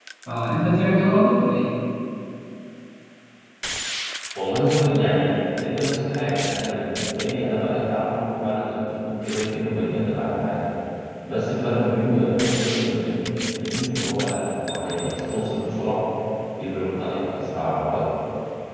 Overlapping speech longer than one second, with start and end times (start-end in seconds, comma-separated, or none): none